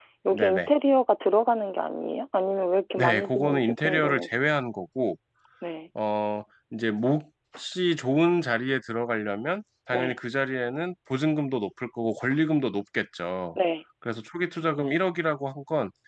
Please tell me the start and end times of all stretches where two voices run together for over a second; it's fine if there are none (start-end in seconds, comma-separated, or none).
3.0-4.3